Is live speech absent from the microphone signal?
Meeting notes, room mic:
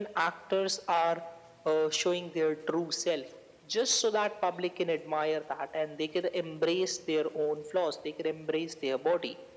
Yes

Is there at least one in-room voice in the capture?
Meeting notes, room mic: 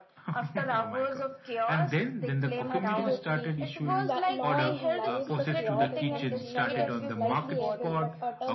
Yes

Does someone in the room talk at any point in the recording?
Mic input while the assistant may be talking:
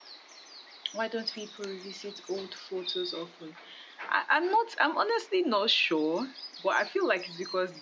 Yes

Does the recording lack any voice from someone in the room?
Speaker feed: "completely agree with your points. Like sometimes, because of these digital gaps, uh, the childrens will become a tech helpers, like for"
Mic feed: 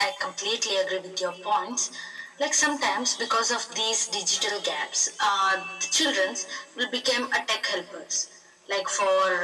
Yes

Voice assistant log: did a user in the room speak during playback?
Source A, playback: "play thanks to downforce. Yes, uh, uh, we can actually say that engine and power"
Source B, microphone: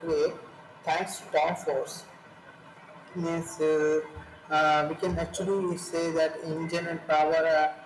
No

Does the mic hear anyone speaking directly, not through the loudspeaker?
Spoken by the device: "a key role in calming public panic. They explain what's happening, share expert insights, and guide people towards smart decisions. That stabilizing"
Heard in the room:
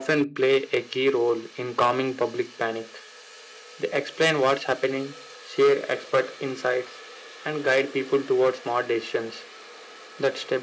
No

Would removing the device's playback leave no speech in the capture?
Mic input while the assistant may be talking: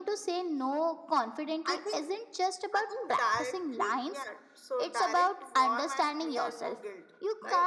Yes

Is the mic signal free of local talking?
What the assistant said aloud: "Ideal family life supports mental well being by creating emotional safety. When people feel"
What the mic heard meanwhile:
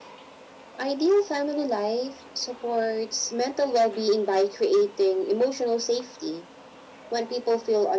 Yes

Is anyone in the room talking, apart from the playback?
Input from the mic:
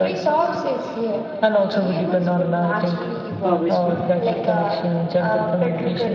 Yes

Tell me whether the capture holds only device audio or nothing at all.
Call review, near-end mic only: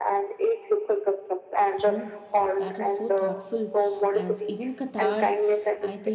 No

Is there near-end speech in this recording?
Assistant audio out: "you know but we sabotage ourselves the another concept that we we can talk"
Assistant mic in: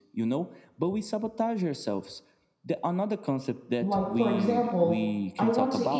Yes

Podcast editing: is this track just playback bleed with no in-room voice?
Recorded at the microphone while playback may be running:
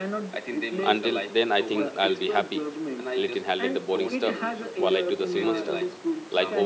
No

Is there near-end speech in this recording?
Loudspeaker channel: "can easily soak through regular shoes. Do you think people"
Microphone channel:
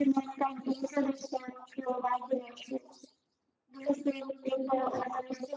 No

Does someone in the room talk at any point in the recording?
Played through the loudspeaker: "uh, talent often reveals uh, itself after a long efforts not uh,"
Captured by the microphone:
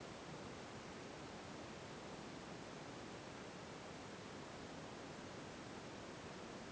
No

